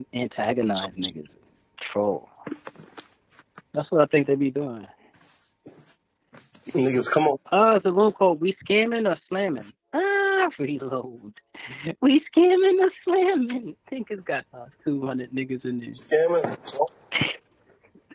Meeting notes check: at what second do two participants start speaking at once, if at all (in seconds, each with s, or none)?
none